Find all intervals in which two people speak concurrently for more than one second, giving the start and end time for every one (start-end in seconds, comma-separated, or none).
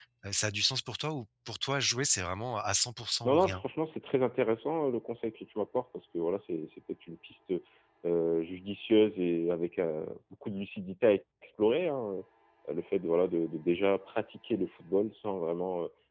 none